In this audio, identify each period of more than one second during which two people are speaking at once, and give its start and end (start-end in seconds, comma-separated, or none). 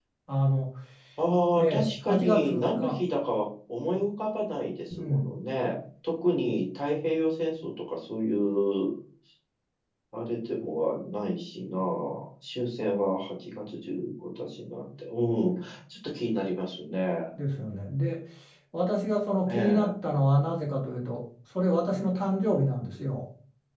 1.5-3.0